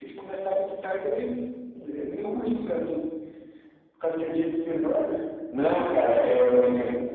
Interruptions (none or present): none